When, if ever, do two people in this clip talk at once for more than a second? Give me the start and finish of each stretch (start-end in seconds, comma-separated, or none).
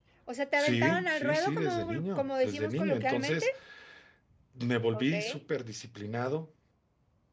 0.6-3.5